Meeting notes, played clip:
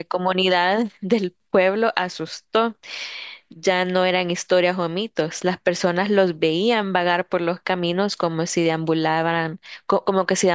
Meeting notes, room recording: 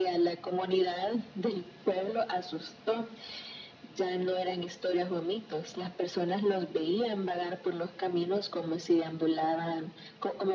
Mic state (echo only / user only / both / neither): echo only